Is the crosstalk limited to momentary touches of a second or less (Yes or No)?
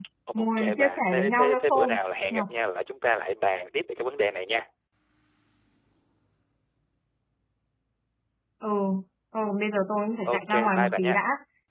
No